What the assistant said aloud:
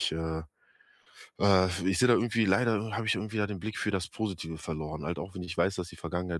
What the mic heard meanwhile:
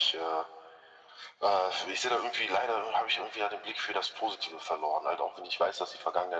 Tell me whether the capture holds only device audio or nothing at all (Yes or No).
Yes